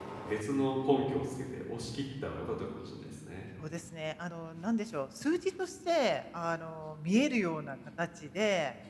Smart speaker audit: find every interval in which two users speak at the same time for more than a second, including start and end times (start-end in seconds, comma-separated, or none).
none